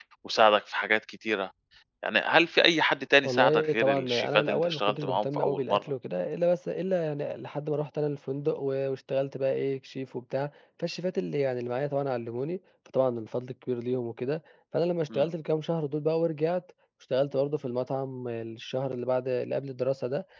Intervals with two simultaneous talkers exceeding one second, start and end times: 3.2-5.9

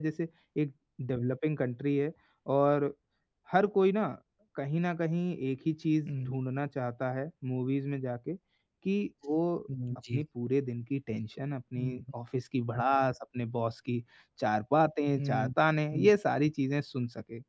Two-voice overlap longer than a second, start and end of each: none

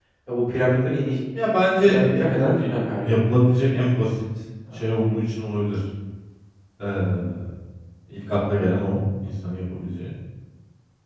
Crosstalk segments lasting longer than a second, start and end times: 1.8-3.5

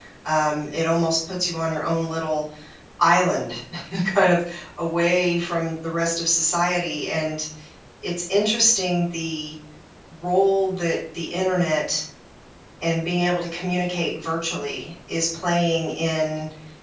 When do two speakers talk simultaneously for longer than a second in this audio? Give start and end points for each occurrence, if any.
none

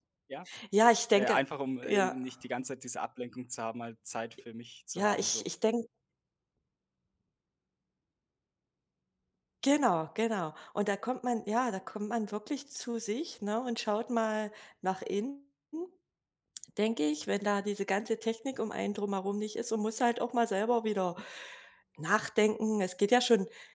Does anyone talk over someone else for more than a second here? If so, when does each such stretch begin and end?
none

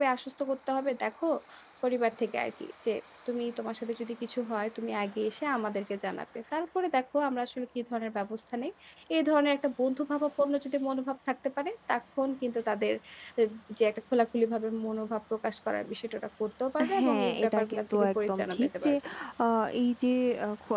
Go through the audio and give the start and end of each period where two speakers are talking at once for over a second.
17.0-18.9

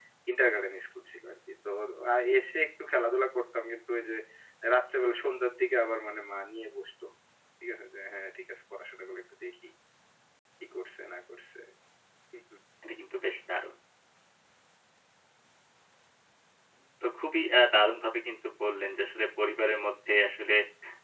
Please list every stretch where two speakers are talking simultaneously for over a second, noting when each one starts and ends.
none

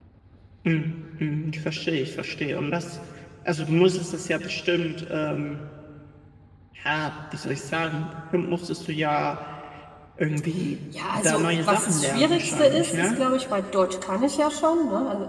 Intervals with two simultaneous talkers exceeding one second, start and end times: 11.1-13.2

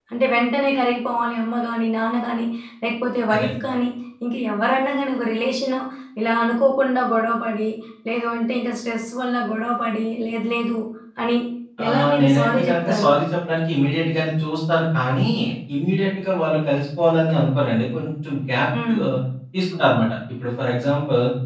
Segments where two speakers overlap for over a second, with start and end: 11.9-13.1

